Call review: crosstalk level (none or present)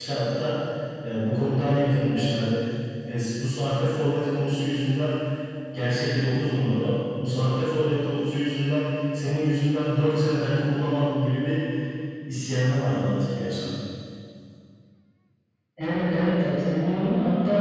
none